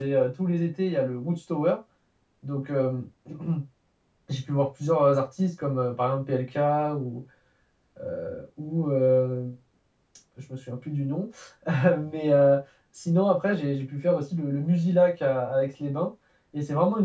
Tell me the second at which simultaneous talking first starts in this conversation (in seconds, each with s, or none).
none